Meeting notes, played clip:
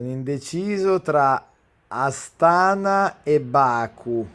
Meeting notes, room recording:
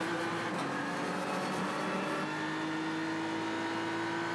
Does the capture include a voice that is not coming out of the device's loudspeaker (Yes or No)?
No